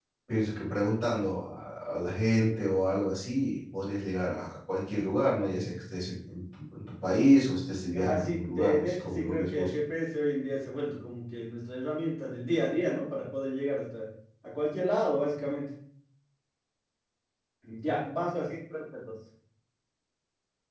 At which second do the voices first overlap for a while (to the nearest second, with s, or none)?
8 s